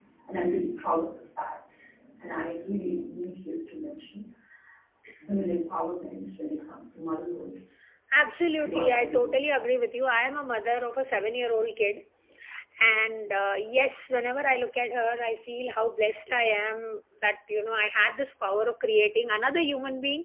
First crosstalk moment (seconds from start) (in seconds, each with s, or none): 8.5 s